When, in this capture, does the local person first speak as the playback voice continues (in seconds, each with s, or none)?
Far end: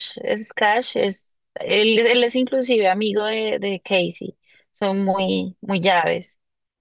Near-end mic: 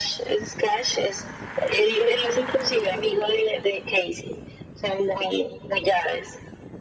none